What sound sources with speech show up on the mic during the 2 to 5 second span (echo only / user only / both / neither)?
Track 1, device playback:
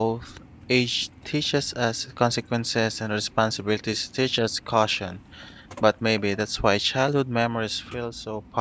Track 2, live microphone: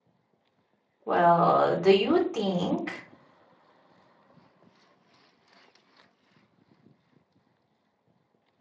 user only